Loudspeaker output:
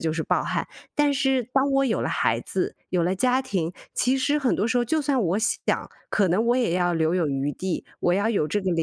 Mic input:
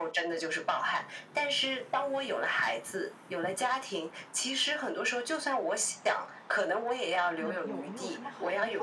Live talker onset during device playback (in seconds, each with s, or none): 7.4 s